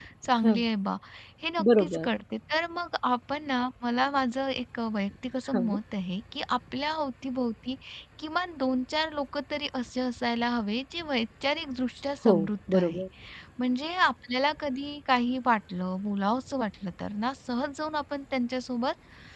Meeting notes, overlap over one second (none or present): none